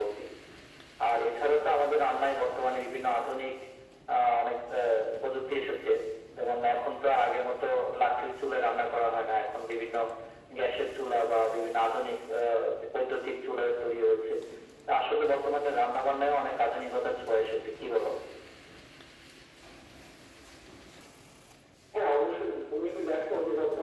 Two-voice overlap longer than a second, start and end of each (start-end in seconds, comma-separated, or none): none